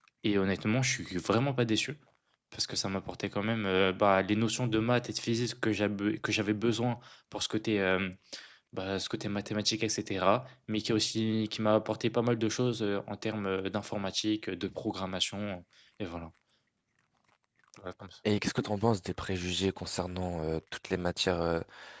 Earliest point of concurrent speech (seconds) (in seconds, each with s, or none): none